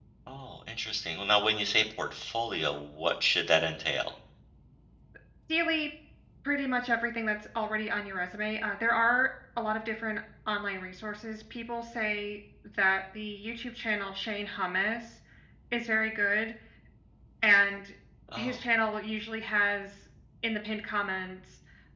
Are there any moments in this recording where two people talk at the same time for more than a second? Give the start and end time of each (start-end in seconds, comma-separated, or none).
none